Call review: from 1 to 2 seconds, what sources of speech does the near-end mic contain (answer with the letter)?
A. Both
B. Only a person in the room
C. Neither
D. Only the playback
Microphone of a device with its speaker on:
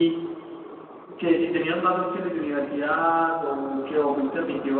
D